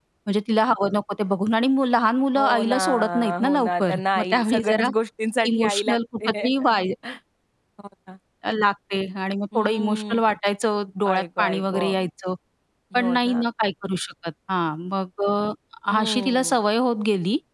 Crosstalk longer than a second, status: present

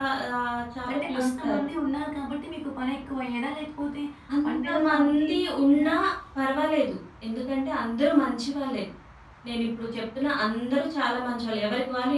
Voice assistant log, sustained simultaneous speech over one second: present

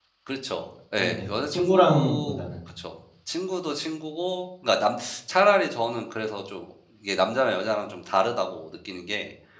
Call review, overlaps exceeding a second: present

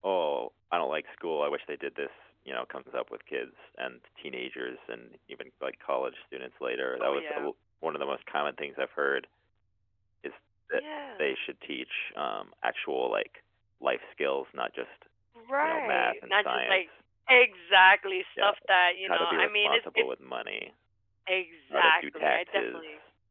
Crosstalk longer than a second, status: present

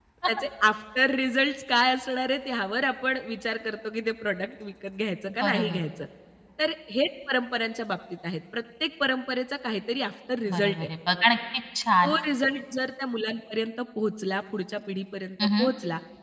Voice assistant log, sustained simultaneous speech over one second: none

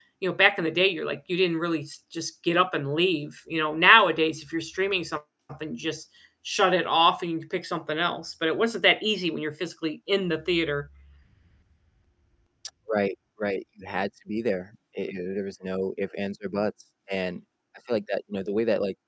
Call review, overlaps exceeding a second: none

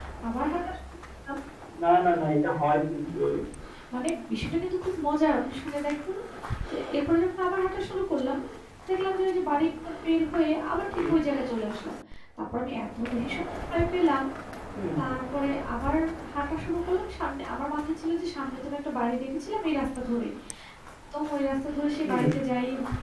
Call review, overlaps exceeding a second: none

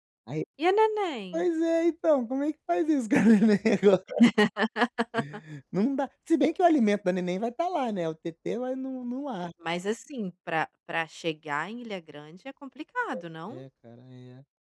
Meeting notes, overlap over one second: none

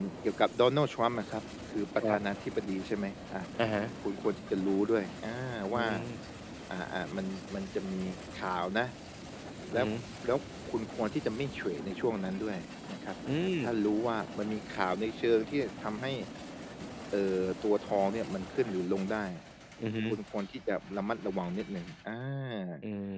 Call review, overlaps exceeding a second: none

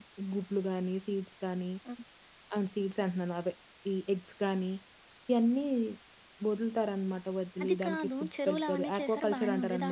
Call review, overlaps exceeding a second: present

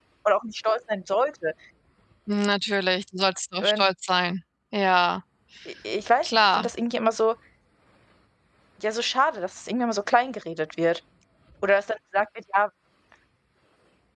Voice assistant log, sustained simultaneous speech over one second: none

